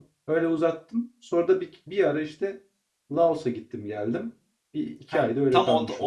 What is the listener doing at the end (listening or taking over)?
taking over